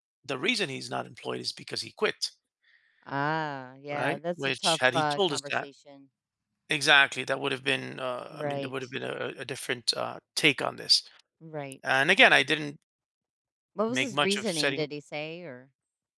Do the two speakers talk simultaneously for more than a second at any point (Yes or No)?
Yes